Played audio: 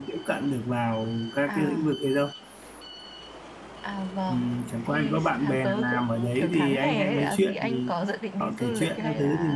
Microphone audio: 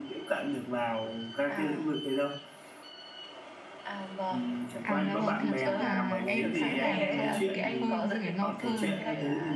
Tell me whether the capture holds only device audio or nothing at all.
No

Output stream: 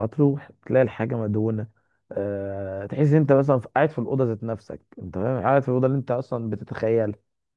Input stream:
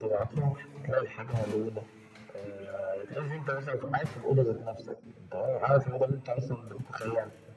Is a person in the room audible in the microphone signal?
No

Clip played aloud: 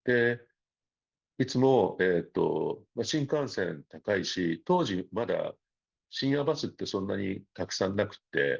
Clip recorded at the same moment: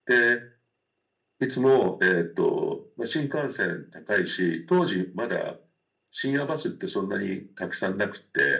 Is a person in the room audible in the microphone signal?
No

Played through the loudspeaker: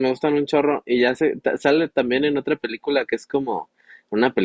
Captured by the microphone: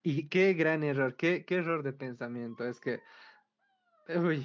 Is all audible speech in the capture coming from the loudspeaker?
No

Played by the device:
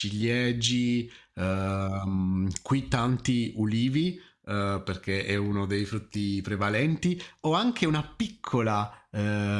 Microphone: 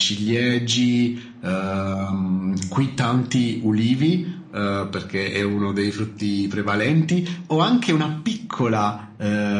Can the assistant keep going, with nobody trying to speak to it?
Yes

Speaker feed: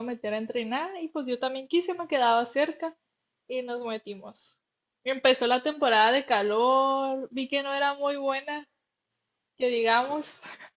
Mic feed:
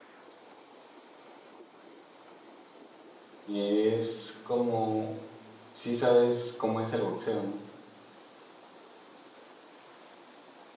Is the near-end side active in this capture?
Yes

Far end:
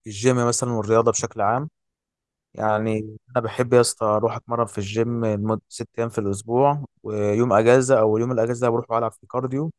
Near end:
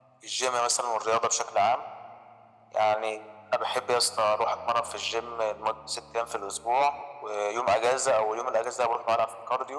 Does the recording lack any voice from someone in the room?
Yes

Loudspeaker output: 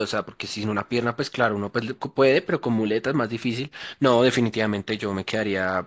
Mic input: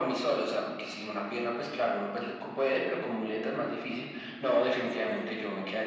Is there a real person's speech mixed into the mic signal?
Yes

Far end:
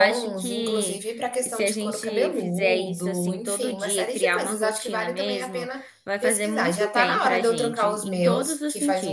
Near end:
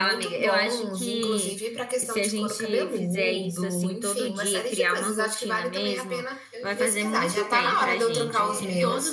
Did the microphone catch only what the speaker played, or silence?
No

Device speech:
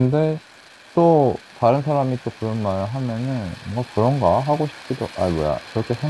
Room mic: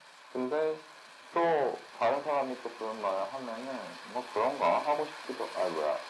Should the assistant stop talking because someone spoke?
No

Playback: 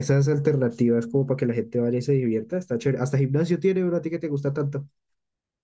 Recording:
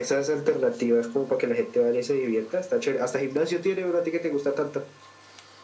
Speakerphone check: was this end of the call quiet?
Yes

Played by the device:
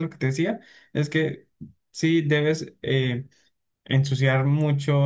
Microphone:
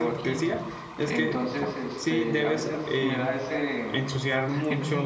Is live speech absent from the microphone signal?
No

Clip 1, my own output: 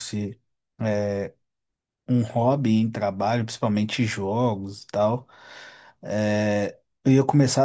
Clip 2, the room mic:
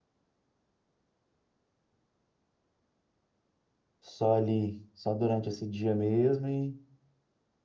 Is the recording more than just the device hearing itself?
Yes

